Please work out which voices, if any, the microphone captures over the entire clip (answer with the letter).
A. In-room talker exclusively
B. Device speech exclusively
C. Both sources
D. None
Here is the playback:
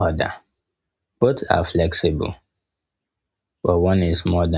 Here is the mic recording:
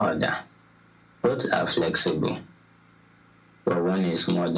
B